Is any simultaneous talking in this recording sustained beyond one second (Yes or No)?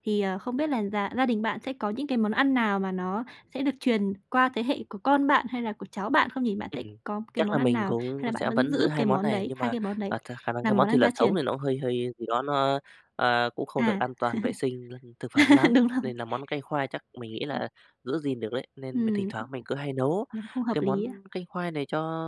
Yes